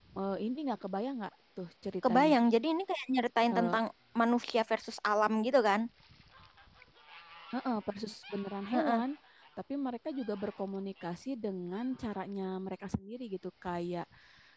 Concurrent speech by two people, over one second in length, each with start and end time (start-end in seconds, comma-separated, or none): none